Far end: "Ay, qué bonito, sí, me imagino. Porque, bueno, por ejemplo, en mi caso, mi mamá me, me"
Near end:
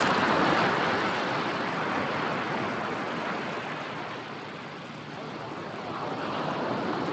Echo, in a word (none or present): none